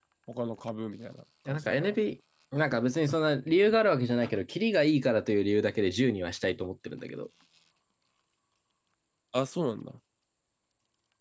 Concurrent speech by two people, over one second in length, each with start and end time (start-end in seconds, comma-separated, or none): none